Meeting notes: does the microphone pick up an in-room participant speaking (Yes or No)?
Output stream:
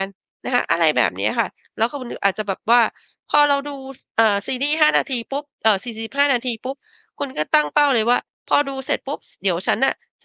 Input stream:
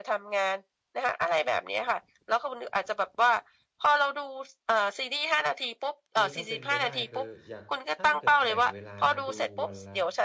Yes